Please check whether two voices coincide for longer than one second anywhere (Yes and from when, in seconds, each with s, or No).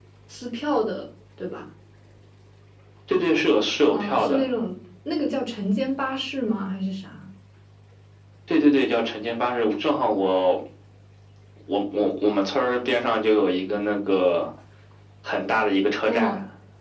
No